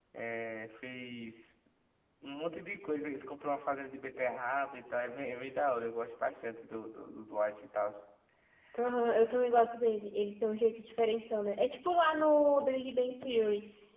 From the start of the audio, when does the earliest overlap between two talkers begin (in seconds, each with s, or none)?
none